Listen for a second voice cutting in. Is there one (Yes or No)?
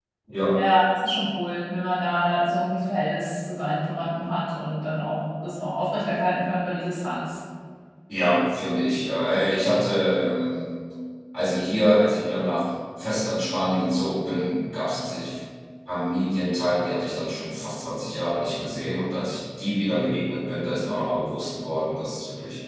No